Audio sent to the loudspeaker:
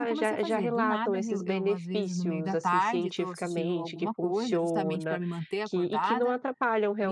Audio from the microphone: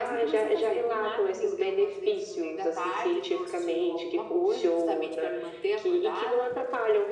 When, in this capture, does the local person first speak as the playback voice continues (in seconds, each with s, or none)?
none